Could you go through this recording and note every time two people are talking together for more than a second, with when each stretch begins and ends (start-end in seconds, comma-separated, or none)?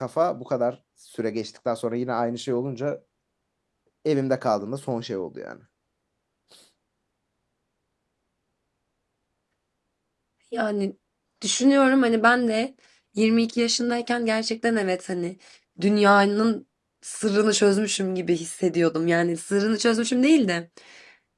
none